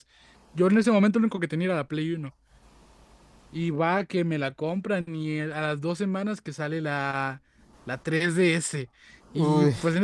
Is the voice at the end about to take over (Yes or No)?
No